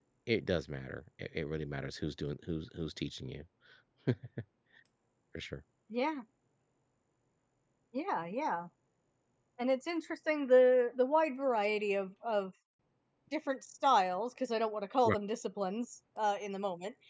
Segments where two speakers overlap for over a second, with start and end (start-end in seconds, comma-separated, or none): none